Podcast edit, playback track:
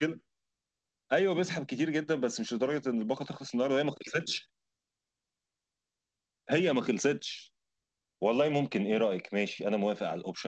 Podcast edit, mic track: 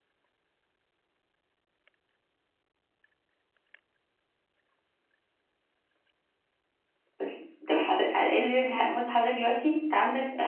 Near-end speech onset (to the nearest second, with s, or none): 7 s